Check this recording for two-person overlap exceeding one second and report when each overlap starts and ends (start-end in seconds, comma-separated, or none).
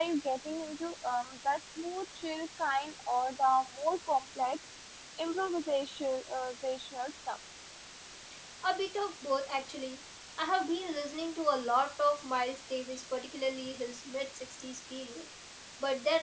none